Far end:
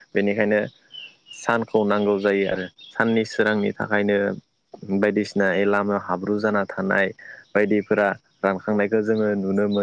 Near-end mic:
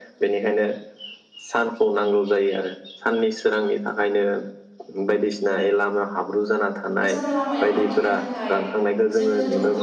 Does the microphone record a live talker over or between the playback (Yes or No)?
Yes